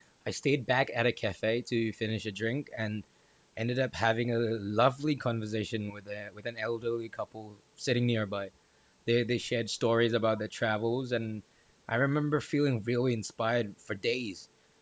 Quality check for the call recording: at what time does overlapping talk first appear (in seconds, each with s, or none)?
none